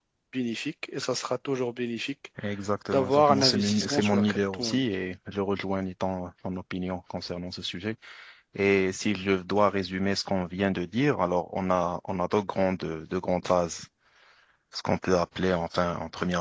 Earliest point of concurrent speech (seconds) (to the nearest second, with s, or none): 3 s